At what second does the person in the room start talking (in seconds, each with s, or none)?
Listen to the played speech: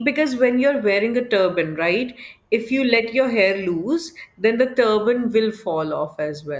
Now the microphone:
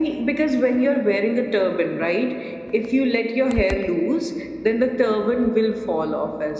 none